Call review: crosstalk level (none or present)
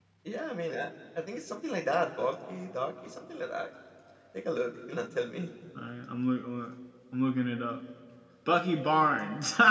none